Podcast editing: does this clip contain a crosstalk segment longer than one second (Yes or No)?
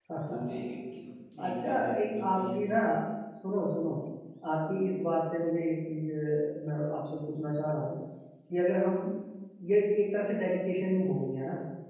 Yes